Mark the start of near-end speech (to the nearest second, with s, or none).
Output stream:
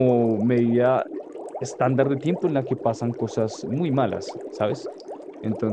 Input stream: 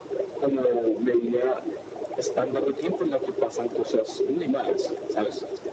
none